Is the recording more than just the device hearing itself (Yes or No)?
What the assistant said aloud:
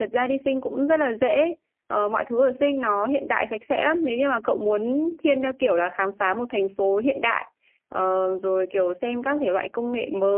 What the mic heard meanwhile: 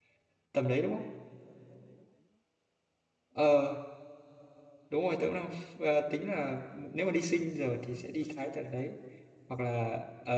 Yes